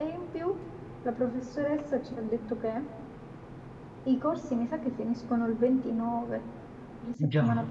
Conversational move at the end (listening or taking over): listening